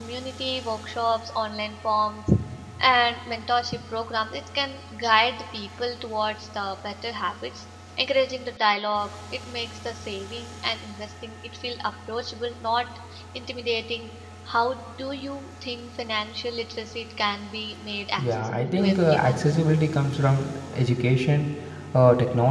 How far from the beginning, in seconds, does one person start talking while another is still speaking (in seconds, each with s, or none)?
18.2 s